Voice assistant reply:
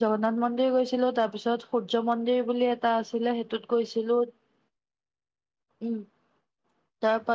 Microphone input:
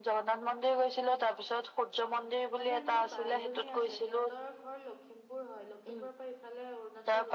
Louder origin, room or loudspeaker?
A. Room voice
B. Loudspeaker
B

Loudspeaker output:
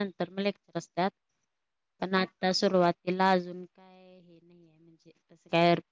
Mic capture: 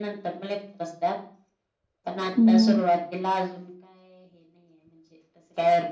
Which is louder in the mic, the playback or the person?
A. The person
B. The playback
A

